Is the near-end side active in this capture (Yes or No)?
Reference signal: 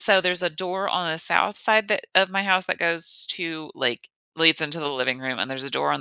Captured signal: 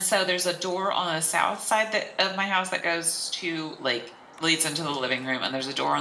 No